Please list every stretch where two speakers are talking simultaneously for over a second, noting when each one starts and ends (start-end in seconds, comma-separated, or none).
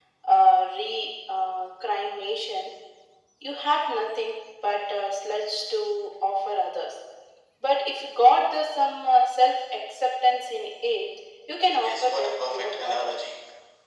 11.8-13.1